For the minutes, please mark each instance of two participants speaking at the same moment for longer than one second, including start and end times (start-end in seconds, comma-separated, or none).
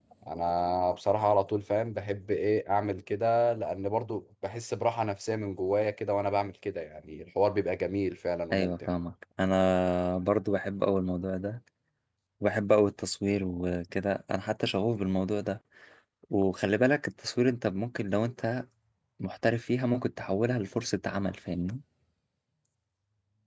none